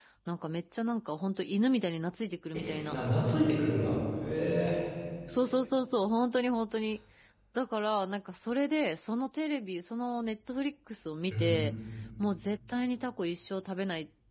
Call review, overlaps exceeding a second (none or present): none